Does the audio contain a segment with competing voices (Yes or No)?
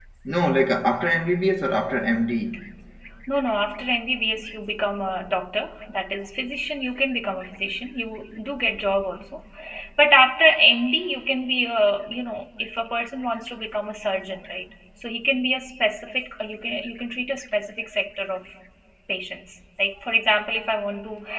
No